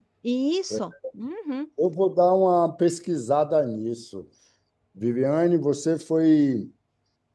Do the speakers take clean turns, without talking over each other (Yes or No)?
Yes